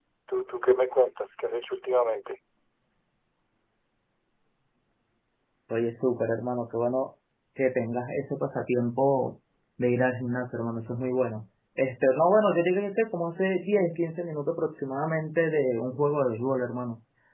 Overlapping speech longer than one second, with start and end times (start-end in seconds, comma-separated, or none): none